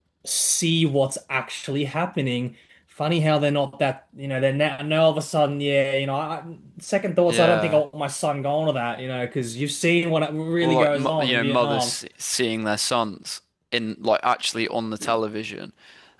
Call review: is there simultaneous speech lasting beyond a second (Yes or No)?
Yes